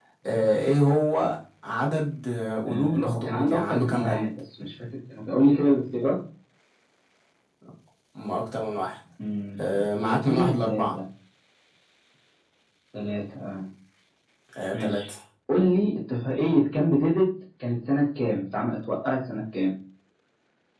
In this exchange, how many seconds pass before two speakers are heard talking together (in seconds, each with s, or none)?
2.7 s